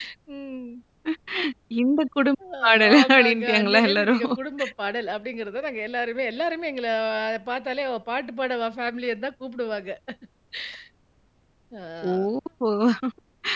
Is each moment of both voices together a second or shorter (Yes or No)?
No